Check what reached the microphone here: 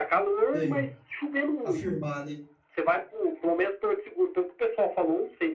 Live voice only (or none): Sei. afirmar, né?